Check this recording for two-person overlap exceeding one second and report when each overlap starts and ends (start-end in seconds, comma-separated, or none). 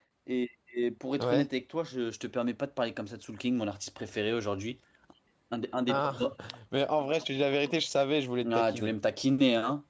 none